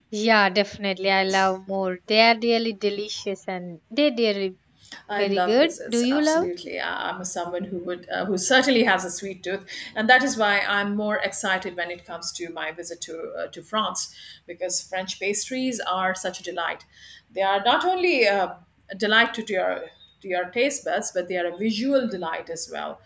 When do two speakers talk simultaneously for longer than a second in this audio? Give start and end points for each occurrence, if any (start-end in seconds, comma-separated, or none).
5.1-6.5